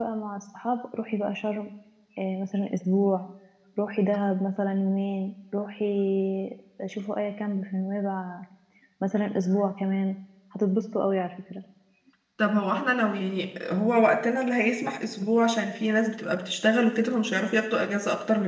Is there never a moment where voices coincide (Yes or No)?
Yes